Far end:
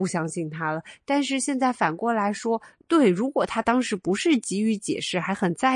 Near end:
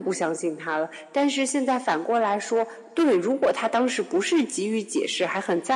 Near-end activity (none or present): none